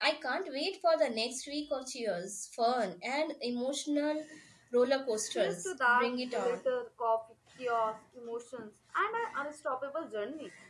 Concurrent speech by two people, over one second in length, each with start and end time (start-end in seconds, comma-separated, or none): 5.3-6.6